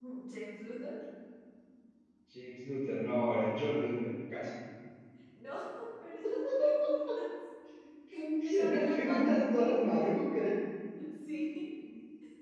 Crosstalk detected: Yes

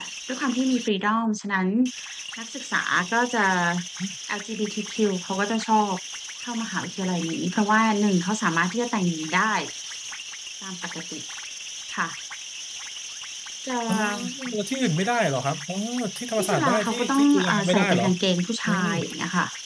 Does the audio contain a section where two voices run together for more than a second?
Yes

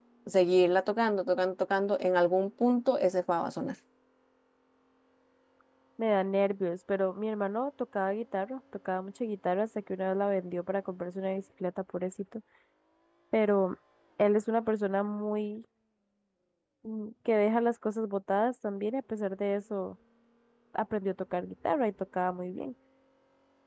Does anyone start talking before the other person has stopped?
No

